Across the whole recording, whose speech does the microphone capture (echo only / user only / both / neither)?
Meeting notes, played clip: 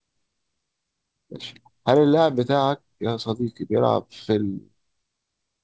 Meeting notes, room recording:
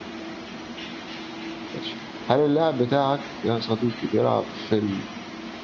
echo only